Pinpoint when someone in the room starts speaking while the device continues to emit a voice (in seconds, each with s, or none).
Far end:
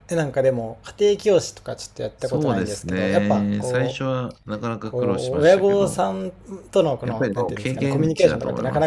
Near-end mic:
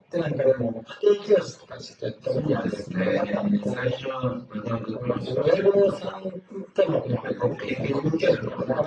none